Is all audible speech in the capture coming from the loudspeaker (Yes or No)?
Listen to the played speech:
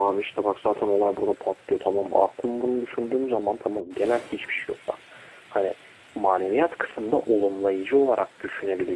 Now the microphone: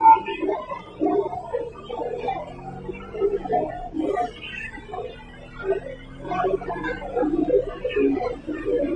Yes